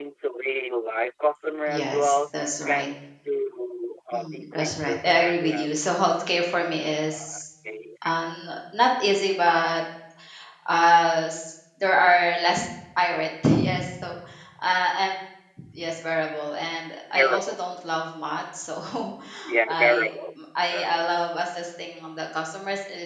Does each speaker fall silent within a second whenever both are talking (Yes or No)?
No